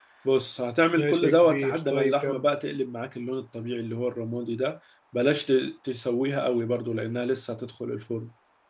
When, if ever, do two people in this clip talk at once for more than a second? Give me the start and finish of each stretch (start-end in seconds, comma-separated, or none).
0.9-2.5